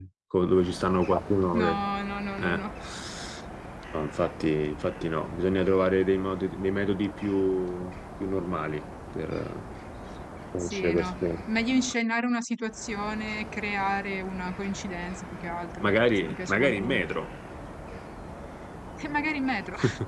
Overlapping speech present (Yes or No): Yes